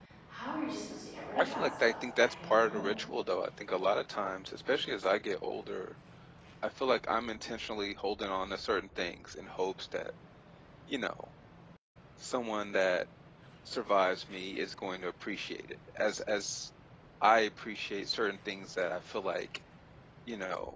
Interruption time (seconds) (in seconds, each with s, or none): 1.3 s